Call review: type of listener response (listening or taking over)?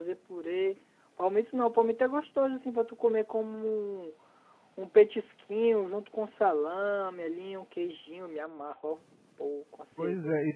taking over